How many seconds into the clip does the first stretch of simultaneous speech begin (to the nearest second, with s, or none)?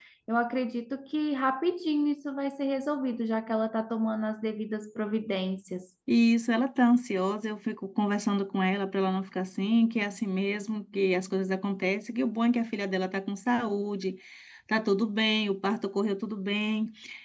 none